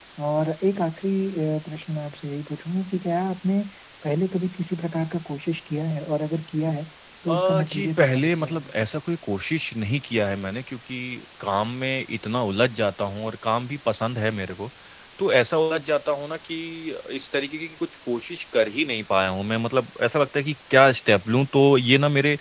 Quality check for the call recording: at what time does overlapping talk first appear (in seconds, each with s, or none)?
7.3 s